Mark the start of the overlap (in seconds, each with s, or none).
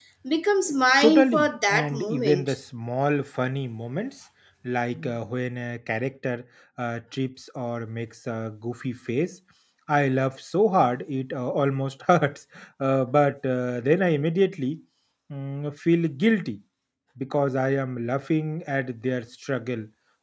1.0 s